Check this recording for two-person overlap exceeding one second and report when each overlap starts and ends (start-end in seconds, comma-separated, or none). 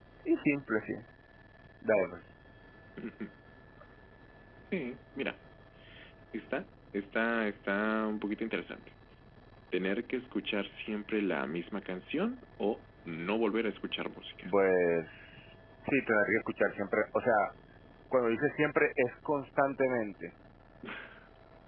none